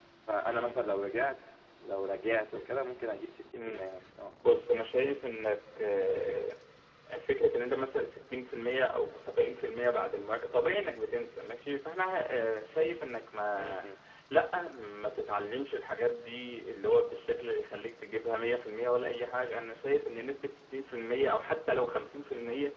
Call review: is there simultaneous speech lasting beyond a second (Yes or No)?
No